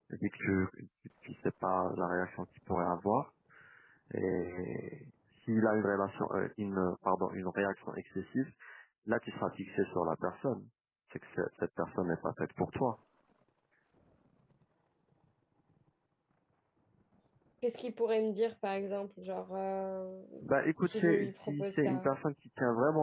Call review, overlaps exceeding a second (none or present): present